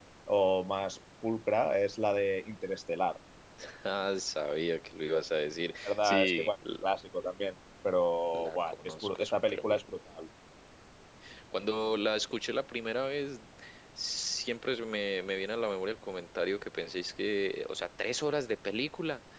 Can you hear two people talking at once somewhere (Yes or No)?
Yes